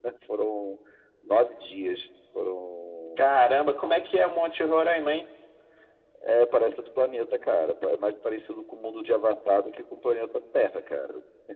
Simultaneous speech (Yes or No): No